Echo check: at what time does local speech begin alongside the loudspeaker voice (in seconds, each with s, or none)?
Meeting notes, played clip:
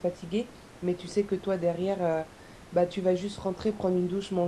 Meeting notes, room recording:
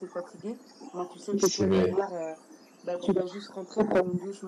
1.4 s